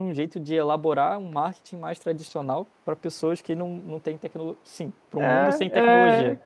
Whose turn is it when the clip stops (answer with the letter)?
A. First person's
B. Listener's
B